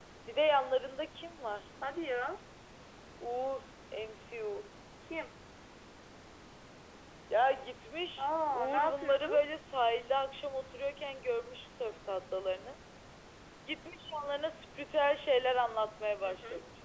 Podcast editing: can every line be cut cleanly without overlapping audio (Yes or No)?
No